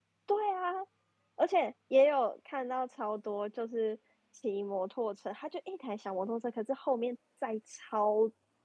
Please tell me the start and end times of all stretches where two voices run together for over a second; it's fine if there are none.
none

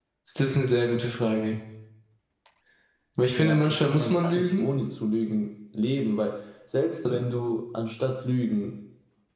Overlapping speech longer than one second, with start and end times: 3.4-4.7

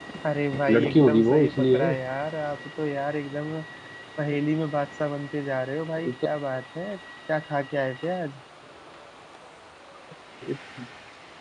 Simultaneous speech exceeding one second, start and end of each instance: 0.7-1.9

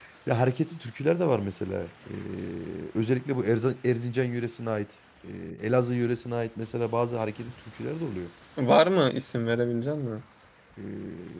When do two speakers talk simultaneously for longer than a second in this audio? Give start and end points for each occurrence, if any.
none

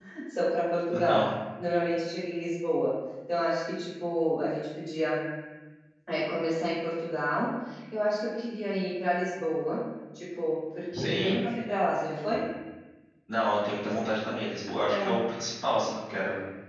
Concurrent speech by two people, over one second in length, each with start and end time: none

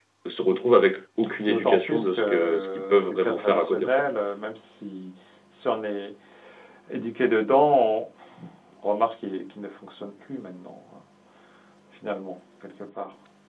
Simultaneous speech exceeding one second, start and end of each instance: 1.5-3.9

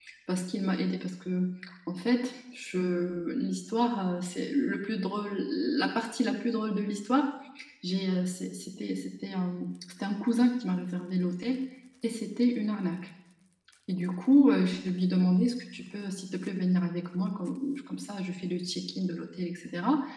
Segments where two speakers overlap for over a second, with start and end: none

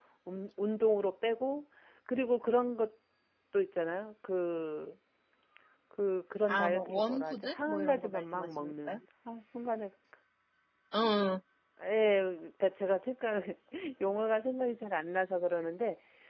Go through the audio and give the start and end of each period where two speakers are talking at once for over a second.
6.5-9.0

